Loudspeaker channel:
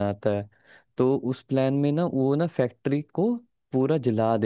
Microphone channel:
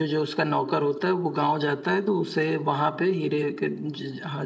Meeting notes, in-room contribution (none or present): present